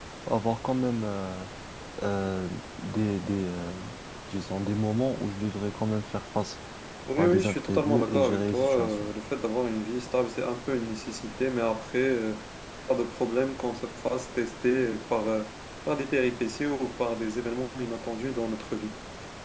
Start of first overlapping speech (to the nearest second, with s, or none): 7 s